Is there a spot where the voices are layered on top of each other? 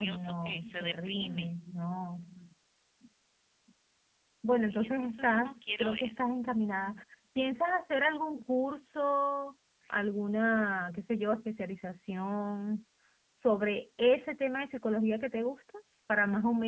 Yes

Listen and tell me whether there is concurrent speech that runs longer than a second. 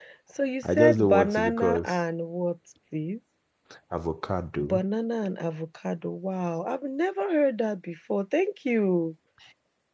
Yes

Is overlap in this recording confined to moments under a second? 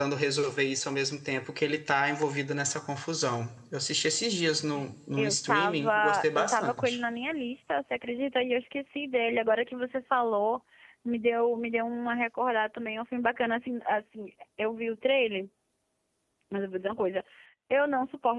No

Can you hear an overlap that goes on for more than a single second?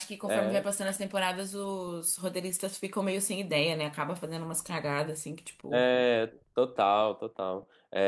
No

